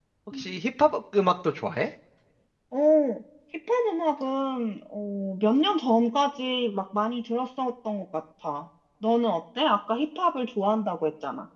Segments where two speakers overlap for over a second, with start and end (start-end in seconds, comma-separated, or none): none